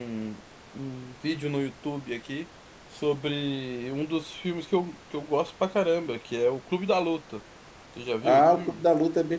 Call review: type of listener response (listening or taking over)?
taking over